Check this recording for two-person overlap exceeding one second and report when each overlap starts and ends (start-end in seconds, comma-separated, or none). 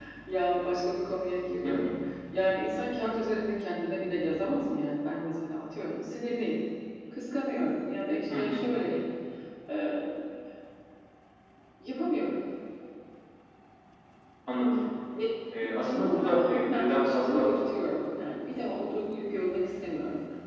15.6-17.5